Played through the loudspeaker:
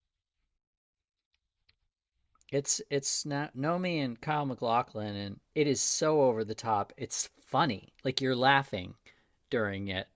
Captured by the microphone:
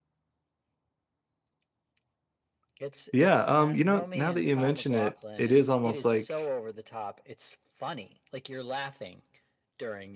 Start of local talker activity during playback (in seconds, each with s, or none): 3.1 s